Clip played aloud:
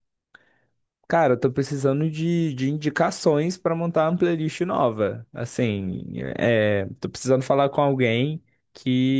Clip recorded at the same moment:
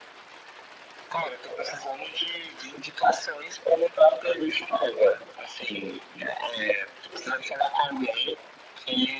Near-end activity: none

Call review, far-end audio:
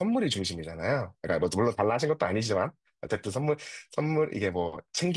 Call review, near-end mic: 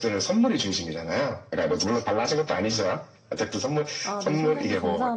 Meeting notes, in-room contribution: present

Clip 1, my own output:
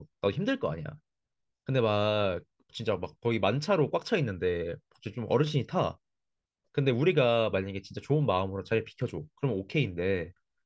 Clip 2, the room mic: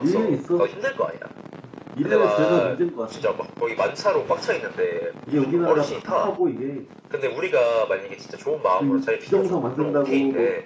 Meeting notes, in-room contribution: present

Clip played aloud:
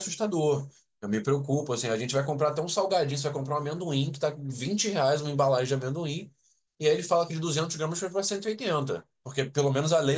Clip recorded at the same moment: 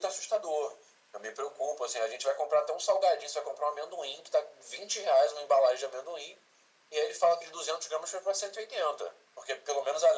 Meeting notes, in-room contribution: none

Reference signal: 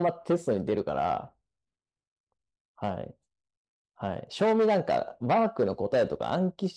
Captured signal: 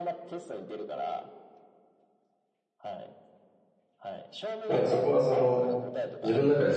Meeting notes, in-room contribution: present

